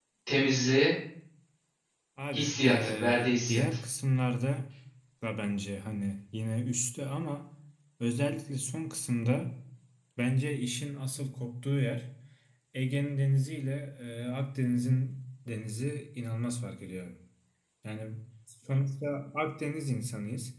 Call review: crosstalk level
present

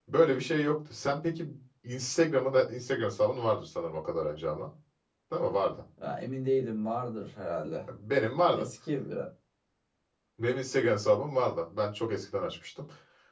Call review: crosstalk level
none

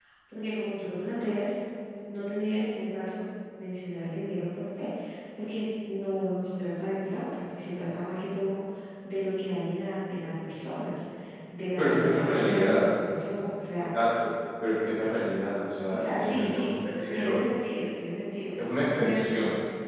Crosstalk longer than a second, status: present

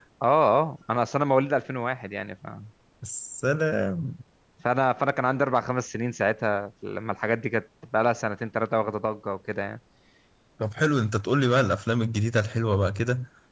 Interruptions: none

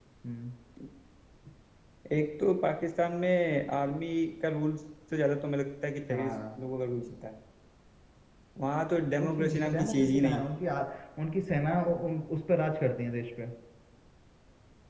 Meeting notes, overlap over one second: present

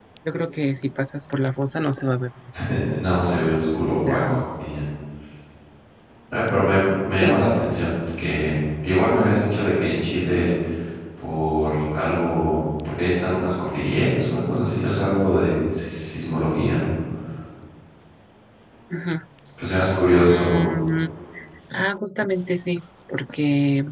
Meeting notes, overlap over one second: none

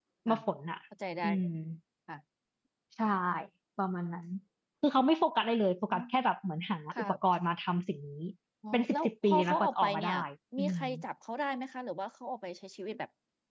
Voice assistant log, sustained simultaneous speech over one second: present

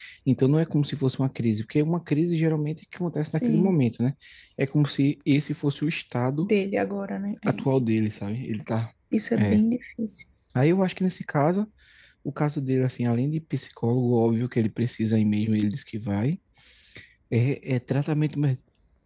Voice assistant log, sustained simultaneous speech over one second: none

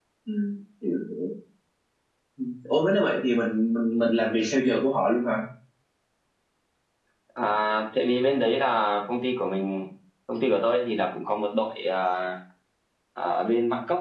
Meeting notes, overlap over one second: none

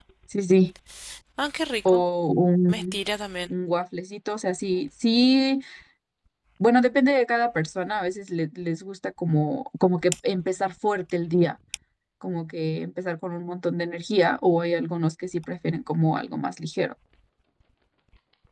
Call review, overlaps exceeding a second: none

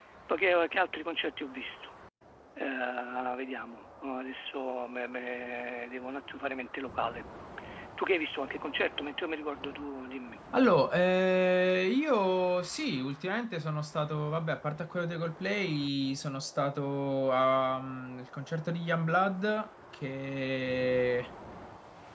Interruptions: none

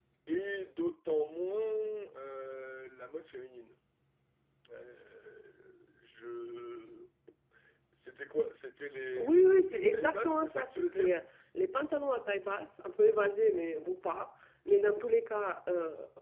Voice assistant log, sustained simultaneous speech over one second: present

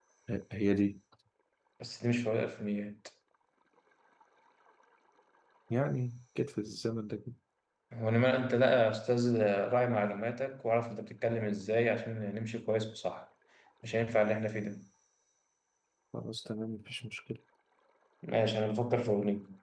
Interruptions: none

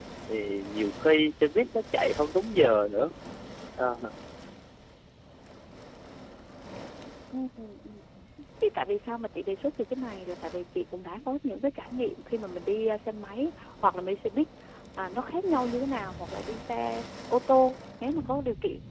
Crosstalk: none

